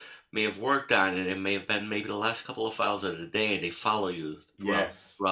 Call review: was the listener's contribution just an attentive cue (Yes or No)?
Yes